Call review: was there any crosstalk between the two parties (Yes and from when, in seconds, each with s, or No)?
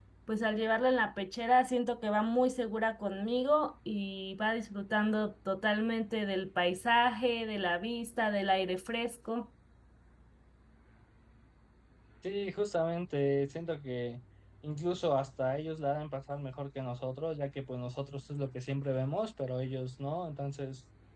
No